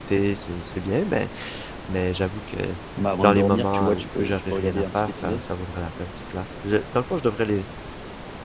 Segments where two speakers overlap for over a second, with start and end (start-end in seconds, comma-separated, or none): 3.2-5.4